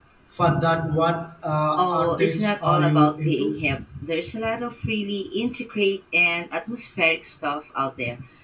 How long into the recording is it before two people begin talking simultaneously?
1.8 s

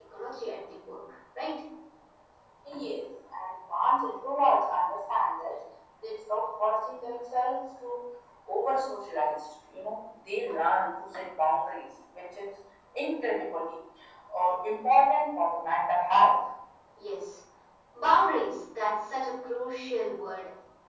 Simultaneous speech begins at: none

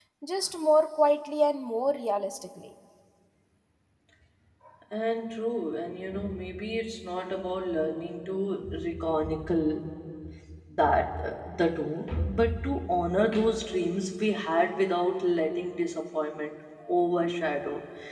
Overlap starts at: none

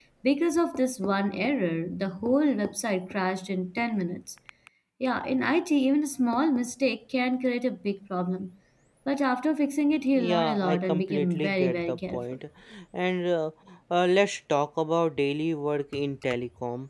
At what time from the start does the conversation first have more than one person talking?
10.2 s

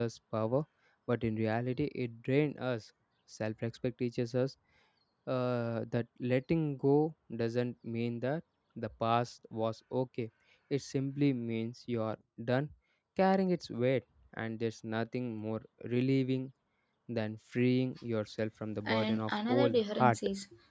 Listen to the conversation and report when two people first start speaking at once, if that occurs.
18.9 s

